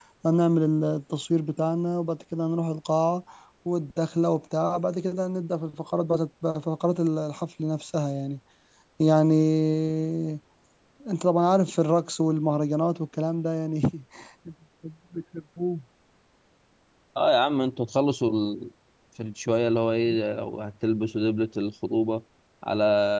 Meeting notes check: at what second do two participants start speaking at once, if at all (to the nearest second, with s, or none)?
none